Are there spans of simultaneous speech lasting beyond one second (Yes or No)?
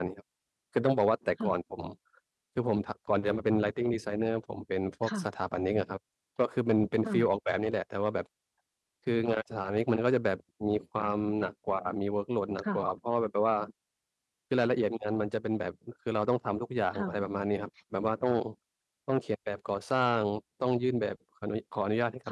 No